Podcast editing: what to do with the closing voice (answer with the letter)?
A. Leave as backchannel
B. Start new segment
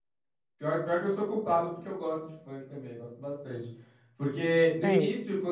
A